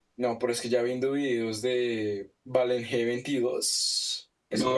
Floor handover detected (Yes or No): Yes